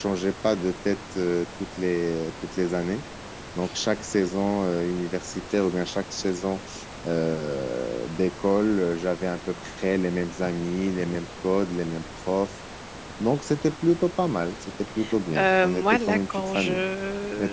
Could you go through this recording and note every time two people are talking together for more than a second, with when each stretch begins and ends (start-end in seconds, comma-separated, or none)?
15.4-16.8